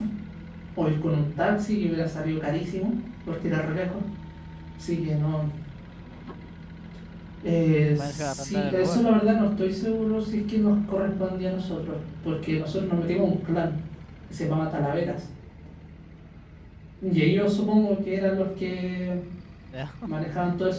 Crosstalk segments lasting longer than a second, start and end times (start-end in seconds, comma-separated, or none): 7.9-9.3